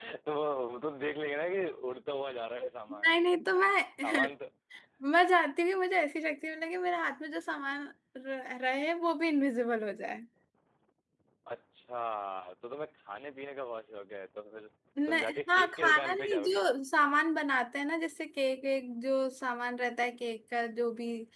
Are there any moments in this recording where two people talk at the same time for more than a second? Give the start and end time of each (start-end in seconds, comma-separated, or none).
15.1-16.6